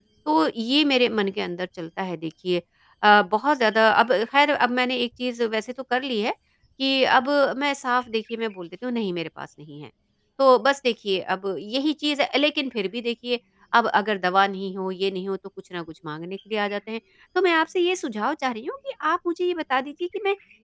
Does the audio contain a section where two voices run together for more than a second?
No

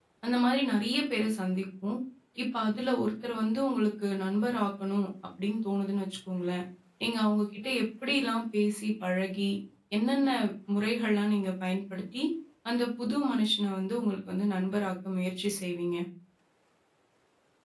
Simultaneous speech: No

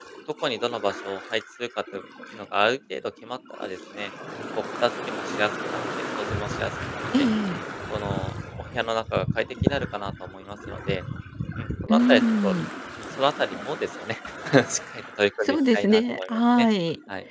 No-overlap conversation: No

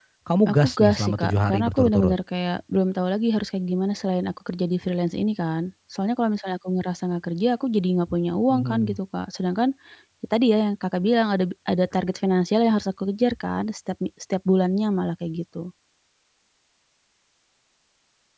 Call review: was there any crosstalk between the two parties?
Yes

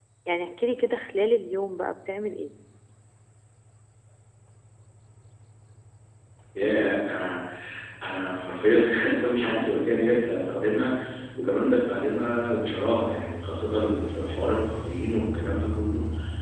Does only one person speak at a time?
Yes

